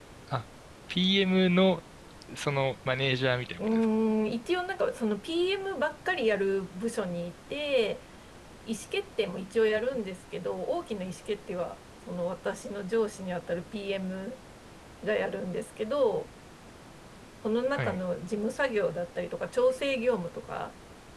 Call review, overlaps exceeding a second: none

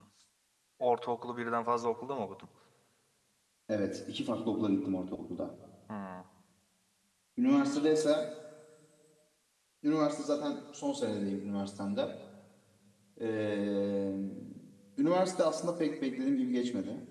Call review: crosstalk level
none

